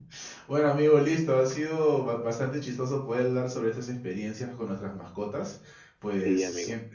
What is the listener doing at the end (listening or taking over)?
listening